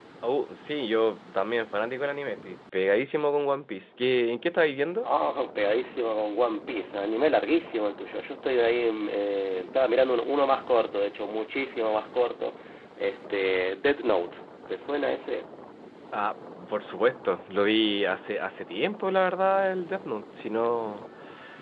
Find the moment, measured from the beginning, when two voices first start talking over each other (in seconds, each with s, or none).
none